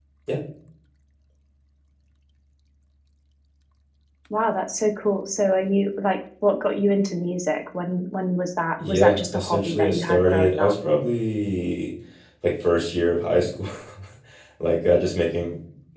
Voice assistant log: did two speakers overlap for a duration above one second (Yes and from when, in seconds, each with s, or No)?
Yes, from 8.8 s